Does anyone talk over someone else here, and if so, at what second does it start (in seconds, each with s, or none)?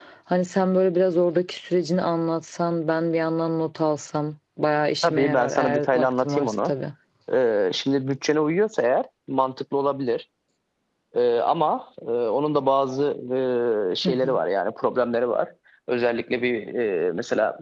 5.0 s